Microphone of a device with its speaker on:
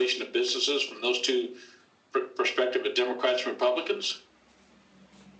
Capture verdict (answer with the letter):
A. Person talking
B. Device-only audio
B